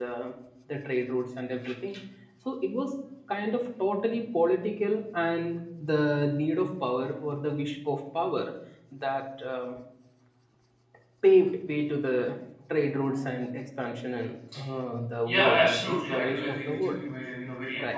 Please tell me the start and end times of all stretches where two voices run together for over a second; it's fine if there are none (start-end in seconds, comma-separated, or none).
15.3-17.0